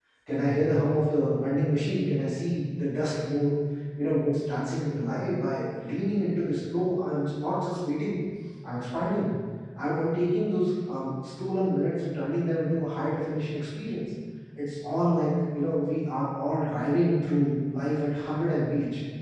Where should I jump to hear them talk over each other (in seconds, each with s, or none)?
none